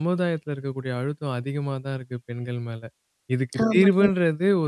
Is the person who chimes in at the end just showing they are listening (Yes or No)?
Yes